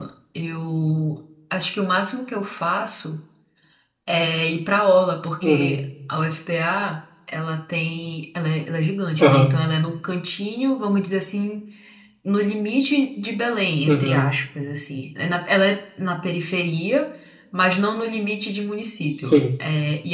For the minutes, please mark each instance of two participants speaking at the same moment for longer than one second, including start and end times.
none

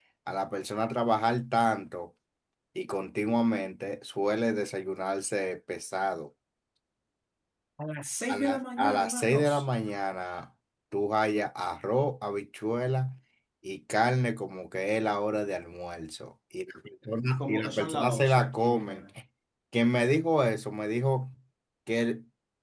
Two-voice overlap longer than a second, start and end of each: 8.3-9.6, 17.4-19.0

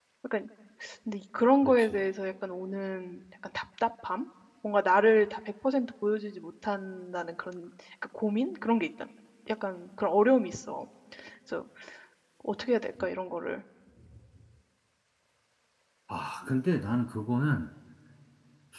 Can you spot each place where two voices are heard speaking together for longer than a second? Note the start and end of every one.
none

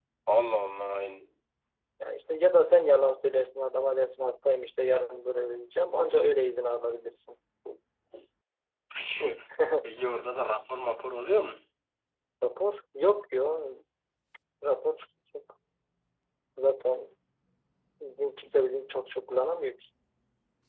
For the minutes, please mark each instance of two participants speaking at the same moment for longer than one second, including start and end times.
none

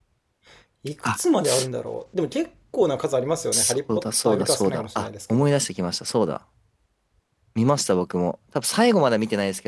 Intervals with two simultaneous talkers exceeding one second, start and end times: 3.5-5.5

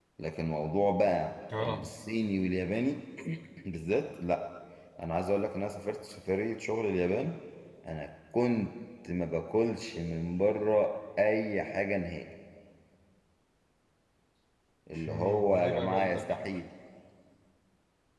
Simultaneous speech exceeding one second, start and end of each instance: 15.1-16.3

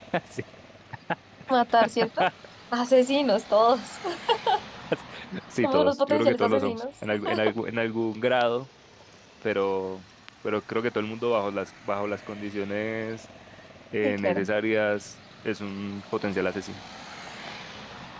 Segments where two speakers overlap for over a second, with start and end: 5.6-6.8

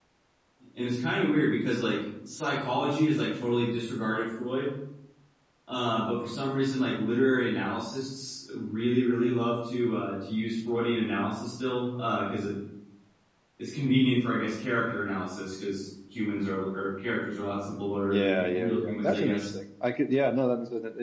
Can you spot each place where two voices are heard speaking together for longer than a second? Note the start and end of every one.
18.0-19.5

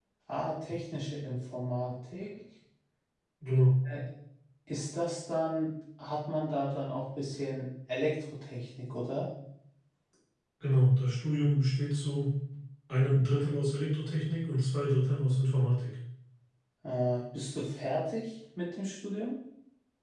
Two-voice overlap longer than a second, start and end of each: none

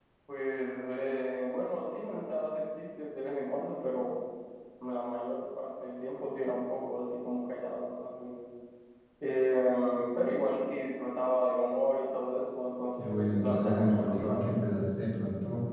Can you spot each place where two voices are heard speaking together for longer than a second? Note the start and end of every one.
13.0-14.6

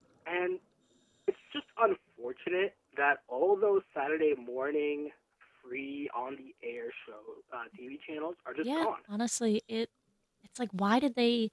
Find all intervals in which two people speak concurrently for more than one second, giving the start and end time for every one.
none

